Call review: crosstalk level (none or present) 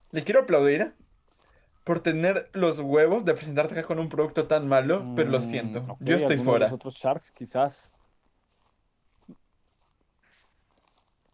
present